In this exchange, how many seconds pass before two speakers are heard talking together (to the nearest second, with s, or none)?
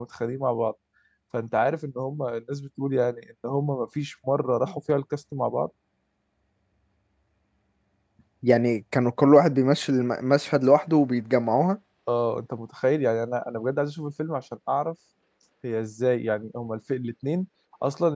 none